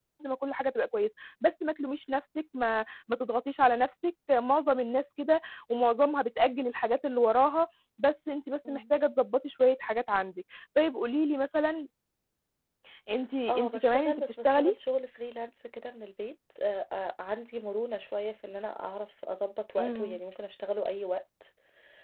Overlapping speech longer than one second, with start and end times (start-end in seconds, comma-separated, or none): 13.5-14.7